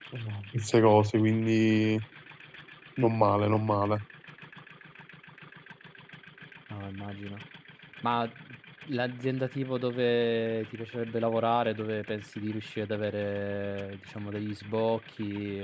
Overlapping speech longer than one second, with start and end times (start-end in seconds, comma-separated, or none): none